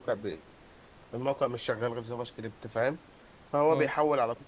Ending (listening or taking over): listening